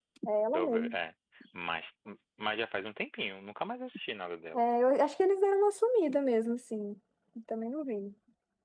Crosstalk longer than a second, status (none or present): none